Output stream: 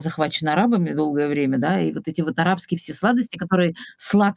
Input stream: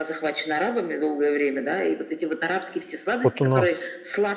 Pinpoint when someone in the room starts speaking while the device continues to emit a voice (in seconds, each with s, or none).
3.2 s